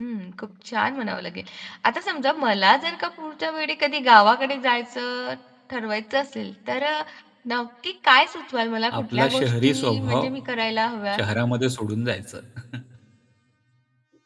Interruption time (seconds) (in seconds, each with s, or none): 8.9 s